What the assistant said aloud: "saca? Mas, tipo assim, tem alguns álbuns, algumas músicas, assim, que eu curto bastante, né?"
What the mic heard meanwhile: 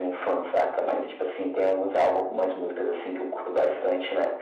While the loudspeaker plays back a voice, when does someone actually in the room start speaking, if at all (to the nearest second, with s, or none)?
none